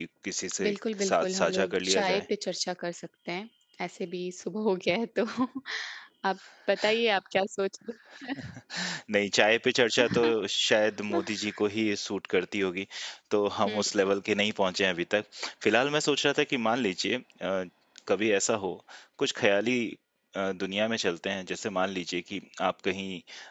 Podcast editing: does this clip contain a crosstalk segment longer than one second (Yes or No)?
Yes